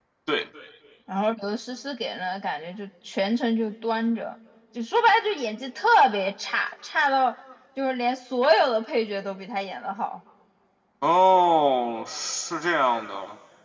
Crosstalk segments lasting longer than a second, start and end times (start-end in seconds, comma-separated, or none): none